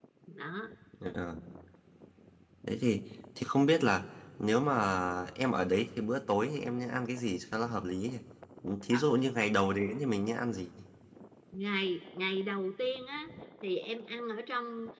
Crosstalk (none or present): none